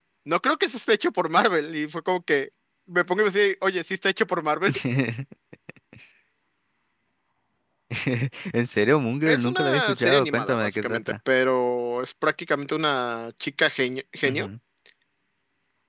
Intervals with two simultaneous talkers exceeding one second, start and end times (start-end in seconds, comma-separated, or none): 9.3-11.1